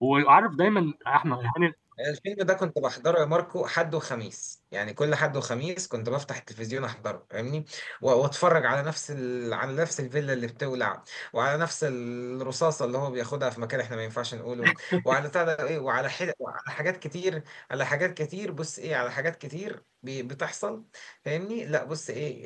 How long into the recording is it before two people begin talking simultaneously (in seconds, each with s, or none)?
none